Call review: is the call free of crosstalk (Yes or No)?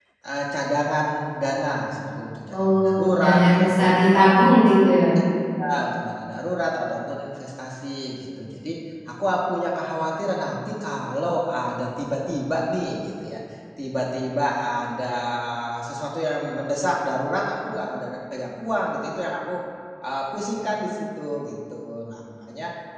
No